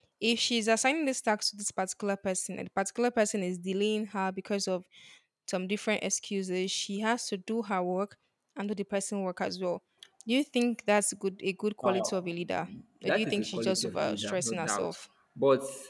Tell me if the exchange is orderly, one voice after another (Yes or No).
No